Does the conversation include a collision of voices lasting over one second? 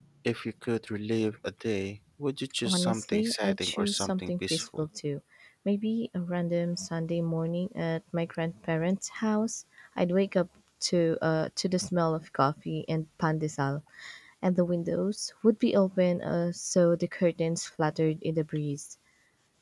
Yes, from 2.6 s

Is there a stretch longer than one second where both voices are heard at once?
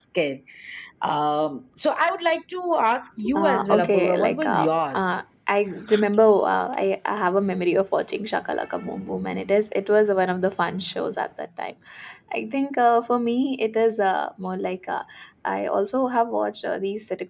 Yes, from 3.2 s

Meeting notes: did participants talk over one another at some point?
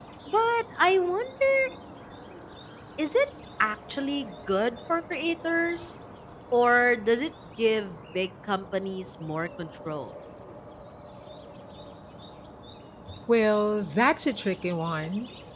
No

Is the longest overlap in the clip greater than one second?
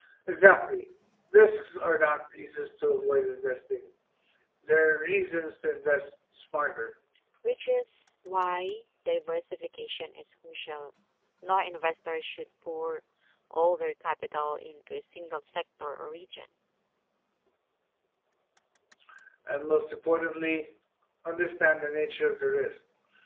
No

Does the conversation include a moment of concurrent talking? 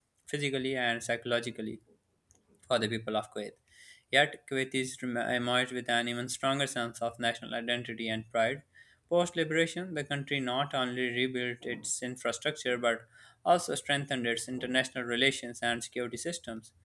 No

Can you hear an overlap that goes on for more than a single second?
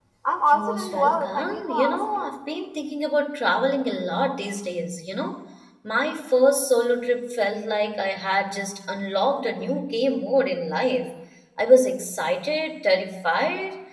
Yes, from 0.5 s

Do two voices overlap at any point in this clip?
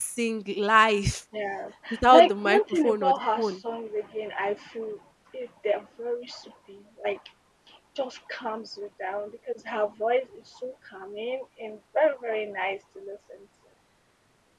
Yes, from 2.1 s

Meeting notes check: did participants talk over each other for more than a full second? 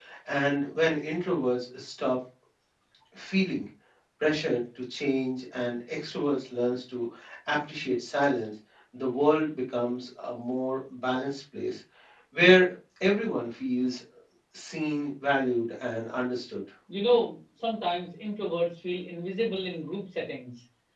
No

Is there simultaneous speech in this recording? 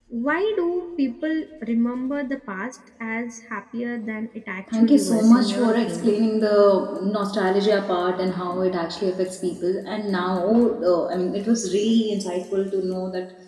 Yes, from 4.7 s

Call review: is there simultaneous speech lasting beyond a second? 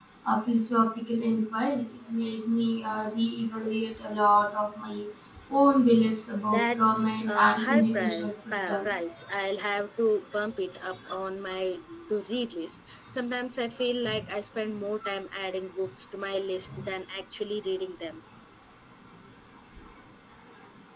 Yes, from 6.5 s

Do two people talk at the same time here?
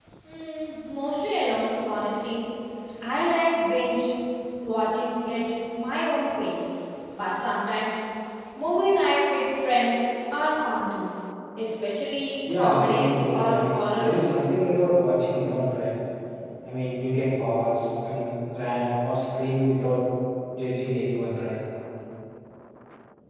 Yes, from 12.4 s

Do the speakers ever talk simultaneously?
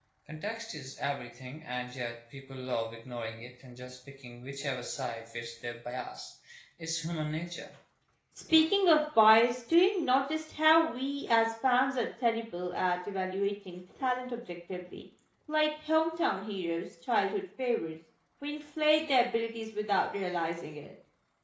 No

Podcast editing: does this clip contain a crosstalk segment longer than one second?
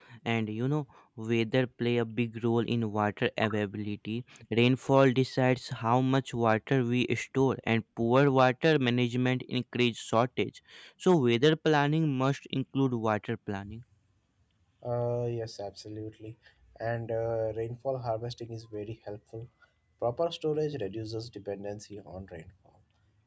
No

